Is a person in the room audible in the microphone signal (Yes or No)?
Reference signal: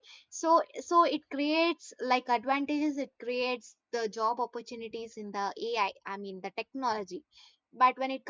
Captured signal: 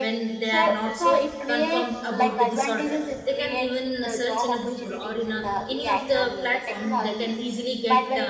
Yes